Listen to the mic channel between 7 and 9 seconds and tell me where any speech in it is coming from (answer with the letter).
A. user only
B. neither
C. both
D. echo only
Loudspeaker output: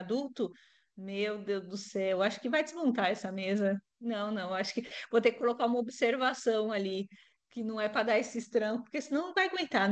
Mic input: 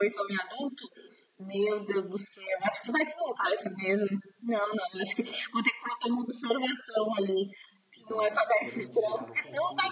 C